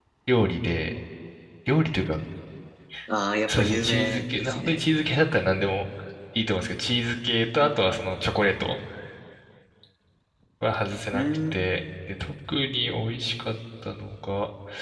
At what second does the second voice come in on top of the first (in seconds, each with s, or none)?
3.5 s